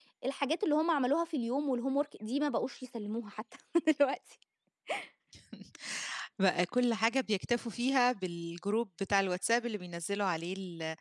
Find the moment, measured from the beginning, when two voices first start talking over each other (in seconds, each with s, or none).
none